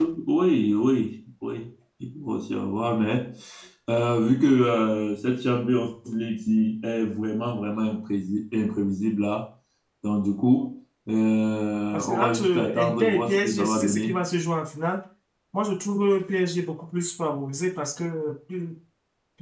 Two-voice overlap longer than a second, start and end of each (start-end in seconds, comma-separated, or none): 11.9-14.2